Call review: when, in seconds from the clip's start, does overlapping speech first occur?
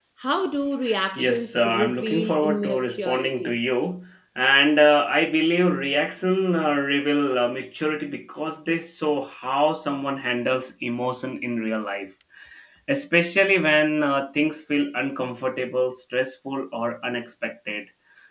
1 s

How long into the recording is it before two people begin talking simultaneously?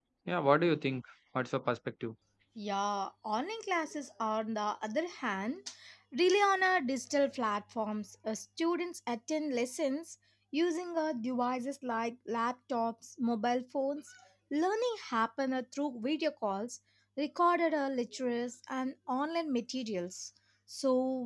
none

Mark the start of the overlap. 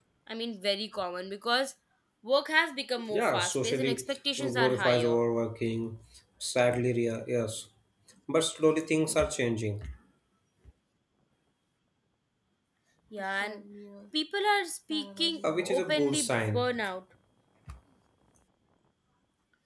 3 s

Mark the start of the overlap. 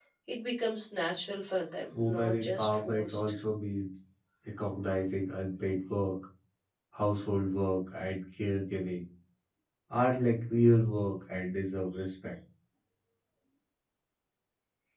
2 s

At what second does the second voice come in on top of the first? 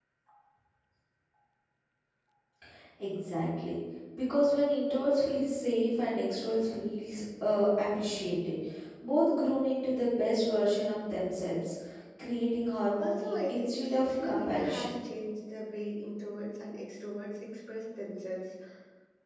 13 s

